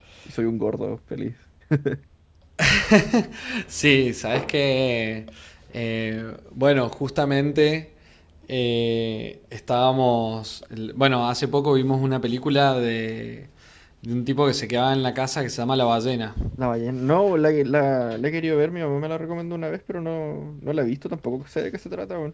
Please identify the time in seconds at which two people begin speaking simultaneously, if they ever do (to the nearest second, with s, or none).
none